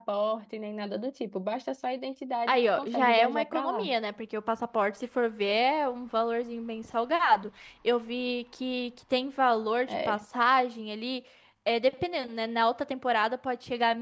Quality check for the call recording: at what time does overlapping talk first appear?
2.5 s

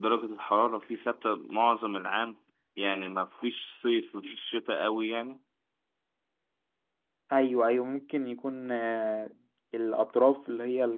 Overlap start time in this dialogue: none

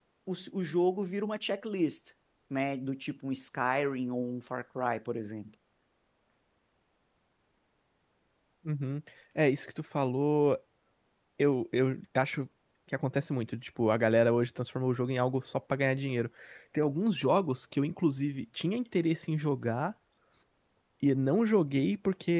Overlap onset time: none

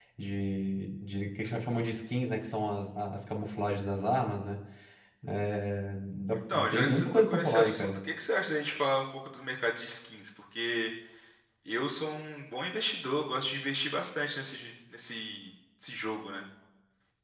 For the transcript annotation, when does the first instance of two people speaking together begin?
6.3 s

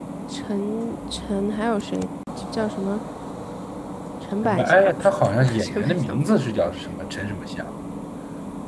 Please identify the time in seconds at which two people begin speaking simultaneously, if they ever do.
4.4 s

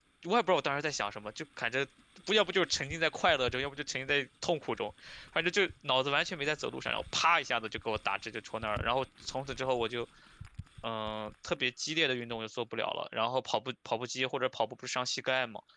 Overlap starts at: none

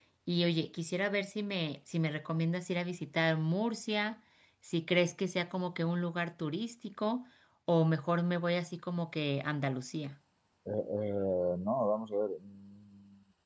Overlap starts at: none

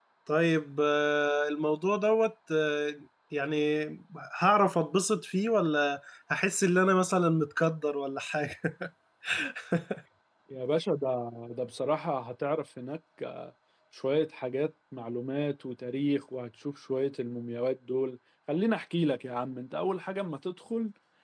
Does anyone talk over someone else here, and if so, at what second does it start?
none

